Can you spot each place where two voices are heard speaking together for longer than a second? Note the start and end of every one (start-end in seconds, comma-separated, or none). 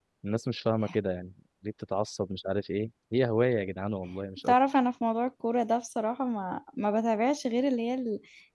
none